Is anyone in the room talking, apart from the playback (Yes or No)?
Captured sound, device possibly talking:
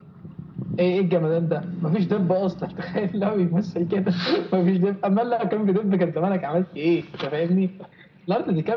No